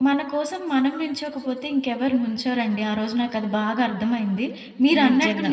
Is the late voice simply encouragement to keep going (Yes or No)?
Yes